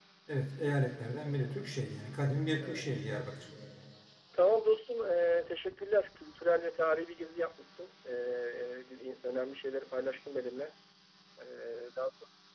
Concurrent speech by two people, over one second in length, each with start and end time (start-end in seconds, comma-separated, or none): none